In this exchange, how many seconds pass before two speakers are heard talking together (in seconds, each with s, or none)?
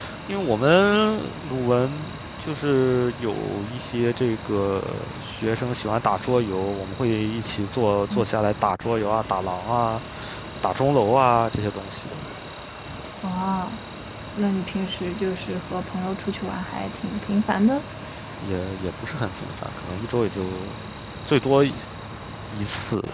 none